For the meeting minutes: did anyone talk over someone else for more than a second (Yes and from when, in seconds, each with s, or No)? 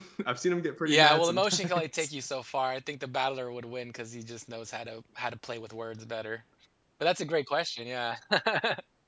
Yes, from 0.8 s